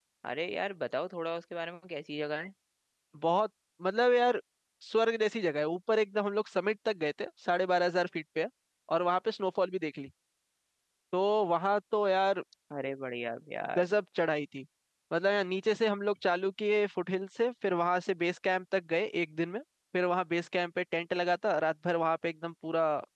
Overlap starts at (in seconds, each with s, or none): none